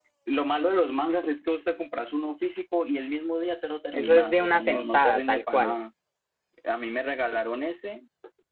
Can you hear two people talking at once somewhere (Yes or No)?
Yes